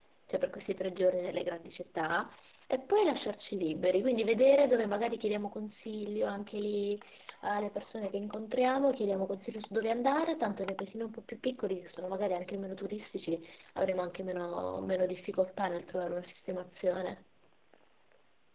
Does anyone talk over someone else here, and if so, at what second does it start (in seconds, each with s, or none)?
none